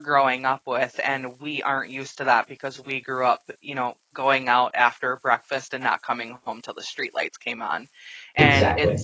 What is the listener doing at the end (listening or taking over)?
listening